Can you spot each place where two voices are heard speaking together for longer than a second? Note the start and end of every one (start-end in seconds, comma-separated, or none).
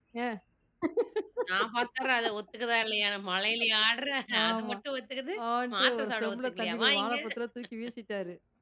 5.8-7.2